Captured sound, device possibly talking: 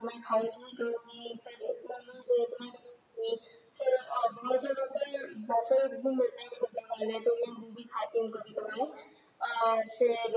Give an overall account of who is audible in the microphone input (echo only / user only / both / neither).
echo only